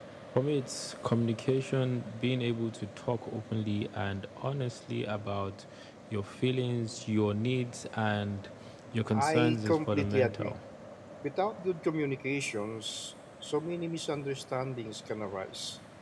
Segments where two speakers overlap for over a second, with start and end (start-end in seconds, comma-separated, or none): 9.1-10.5